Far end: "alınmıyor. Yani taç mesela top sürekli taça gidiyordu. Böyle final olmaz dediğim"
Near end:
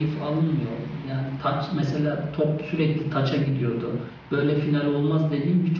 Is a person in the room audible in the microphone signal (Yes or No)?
No